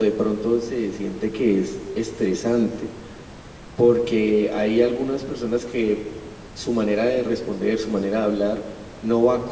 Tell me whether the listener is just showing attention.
Yes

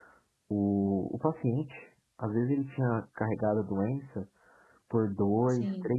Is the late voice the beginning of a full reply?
No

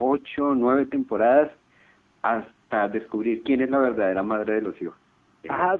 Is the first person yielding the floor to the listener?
Yes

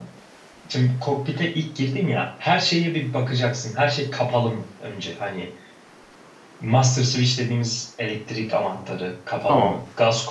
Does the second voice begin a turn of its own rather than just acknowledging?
No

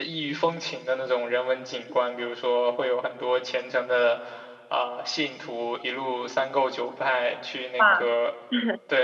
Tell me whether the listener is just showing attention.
Yes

